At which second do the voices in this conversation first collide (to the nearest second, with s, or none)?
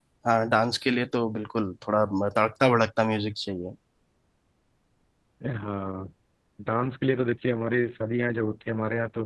none